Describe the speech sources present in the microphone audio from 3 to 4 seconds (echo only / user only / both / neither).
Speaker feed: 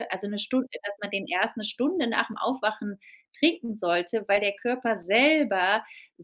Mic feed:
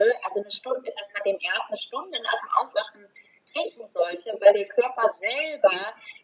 echo only